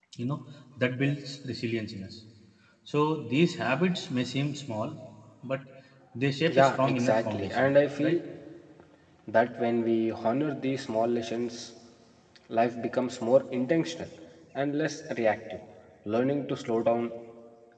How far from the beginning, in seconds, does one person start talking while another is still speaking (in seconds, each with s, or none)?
6.5 s